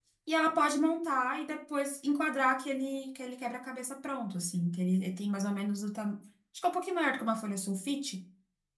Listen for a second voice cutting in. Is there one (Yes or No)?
No